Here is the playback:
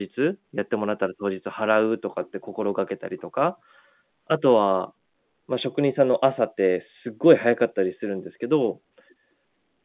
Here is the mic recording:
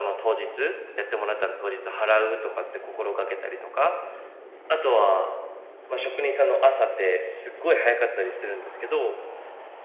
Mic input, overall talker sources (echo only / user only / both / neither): echo only